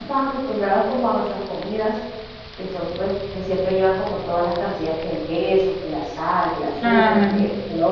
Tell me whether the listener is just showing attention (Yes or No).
Yes